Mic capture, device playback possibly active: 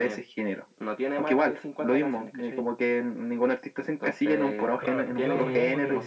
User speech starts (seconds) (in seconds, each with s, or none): 4.8 s